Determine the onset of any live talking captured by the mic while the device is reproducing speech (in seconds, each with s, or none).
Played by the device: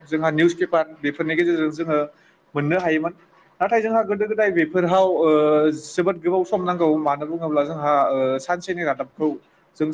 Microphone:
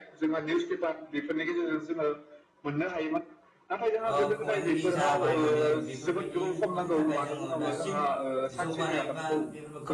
4.1 s